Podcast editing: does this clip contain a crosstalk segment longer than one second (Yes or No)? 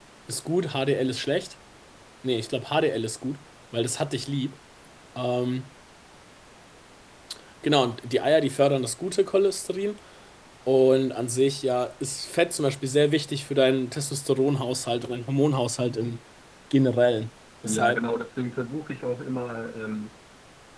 No